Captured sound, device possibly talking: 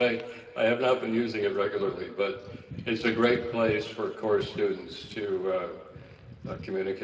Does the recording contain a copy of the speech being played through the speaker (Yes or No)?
No